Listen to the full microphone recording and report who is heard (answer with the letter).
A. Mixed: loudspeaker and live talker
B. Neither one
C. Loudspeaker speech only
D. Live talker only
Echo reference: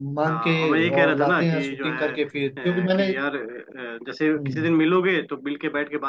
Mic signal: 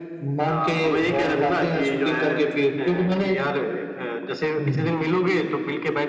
C